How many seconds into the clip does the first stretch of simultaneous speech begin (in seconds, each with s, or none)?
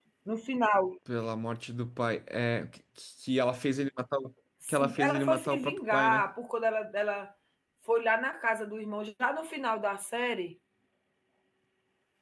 4.6 s